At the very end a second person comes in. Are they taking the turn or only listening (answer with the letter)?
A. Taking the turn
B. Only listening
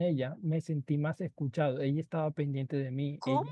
B